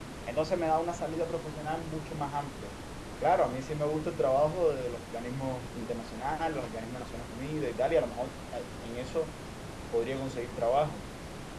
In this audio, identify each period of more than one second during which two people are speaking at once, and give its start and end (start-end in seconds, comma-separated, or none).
none